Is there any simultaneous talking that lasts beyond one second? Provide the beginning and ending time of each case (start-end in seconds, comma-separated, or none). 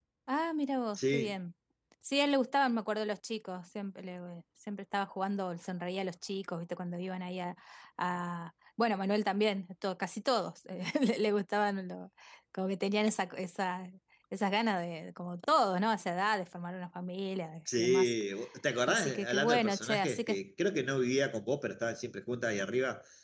18.9-20.4